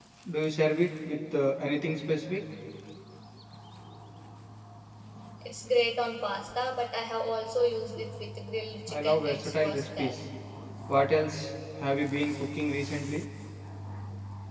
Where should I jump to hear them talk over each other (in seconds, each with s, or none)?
8.9 s